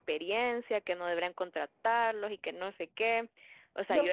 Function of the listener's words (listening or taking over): taking over